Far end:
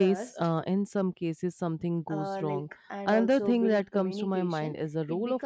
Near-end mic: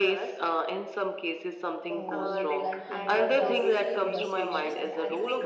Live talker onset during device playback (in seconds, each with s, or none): 1.9 s